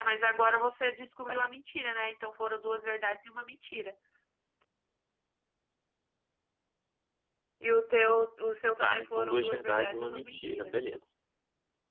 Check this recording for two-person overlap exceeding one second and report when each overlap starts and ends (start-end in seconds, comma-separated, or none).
8.8-10.7